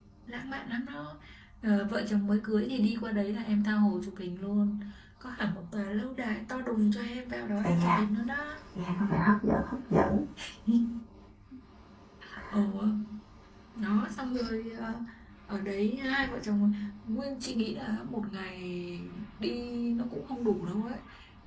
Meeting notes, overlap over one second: none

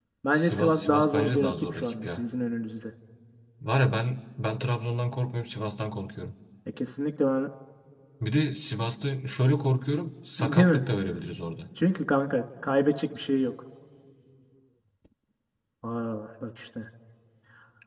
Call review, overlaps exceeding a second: present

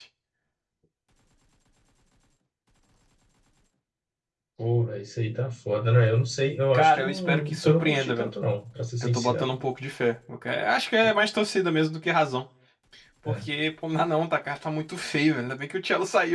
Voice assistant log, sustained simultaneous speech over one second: present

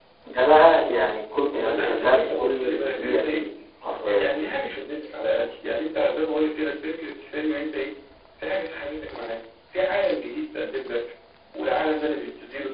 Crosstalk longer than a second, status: present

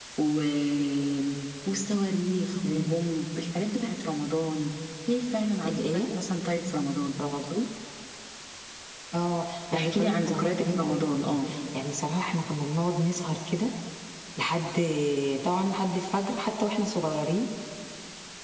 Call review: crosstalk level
present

